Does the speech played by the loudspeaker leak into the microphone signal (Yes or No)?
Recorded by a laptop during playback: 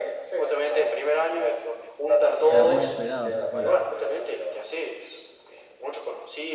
Yes